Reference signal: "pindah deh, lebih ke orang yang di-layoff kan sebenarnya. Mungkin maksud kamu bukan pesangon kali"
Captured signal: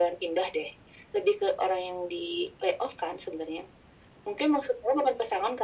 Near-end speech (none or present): none